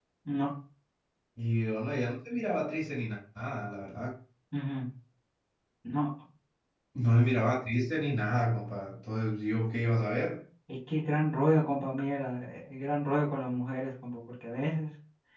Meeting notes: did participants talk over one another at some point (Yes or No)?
No